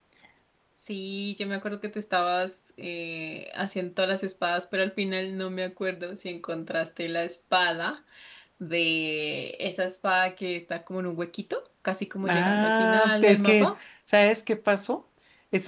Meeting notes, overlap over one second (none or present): present